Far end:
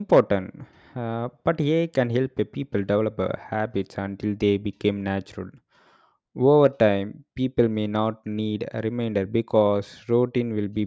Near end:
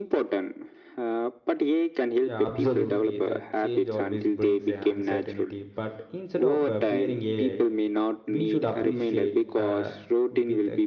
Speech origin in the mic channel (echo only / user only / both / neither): both